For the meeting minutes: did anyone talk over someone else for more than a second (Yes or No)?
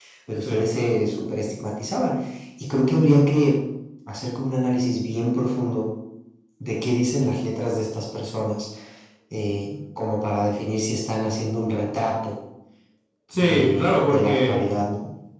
Yes